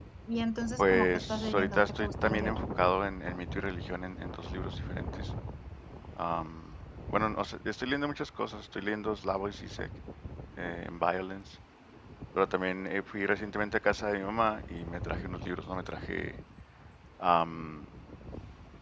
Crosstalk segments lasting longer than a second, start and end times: 0.8-2.6

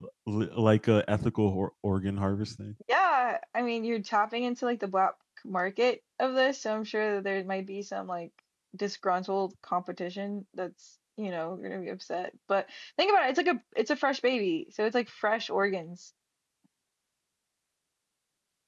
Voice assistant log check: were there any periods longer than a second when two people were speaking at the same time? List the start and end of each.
none

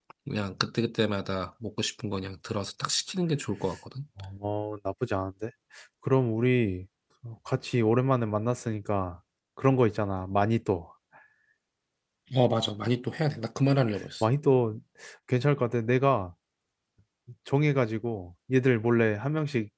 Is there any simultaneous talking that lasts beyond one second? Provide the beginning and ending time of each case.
none

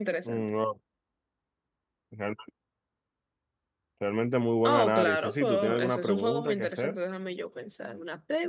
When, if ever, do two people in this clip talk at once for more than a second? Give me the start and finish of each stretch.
4.6-7.0

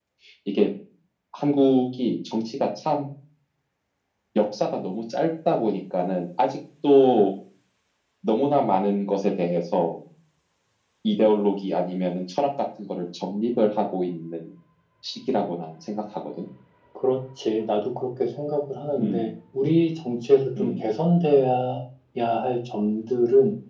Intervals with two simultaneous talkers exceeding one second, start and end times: none

